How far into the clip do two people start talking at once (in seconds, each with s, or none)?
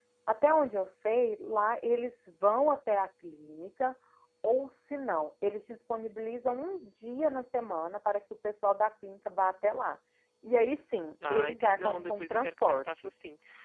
11.3 s